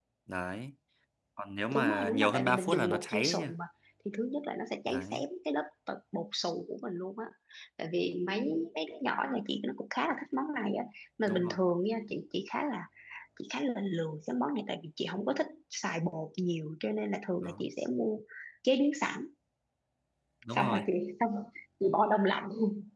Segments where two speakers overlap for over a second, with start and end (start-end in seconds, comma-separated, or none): 1.7-3.5